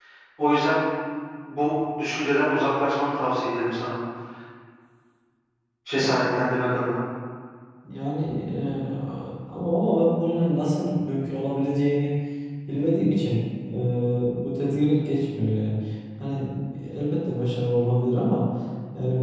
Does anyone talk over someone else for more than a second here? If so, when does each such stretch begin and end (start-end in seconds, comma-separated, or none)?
none